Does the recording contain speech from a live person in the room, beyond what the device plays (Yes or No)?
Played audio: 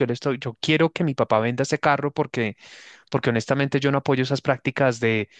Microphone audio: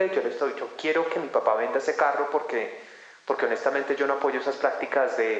No